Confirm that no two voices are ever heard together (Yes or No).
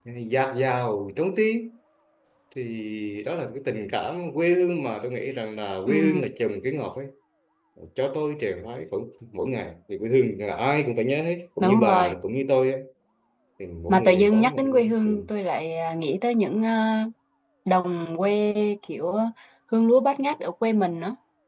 No